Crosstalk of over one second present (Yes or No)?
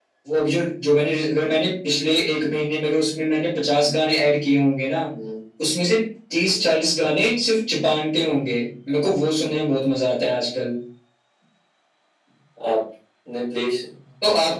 No